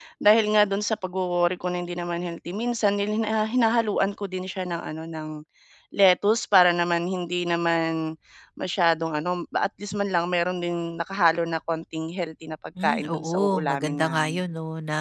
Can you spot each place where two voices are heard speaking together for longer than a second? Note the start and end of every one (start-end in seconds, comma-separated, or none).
12.8-14.4